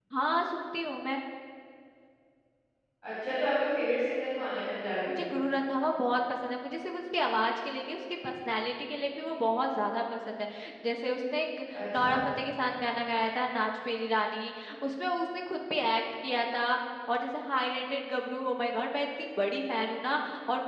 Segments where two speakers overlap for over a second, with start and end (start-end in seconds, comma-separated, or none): none